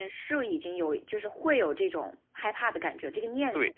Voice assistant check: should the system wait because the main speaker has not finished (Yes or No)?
No